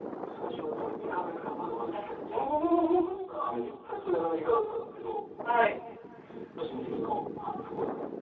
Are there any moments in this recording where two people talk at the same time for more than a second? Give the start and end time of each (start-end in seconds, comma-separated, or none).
1.9-3.2